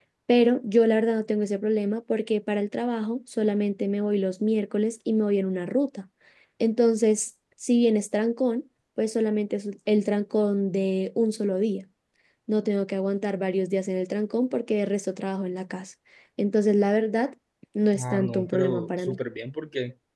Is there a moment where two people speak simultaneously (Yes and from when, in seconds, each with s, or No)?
Yes, from 18.0 s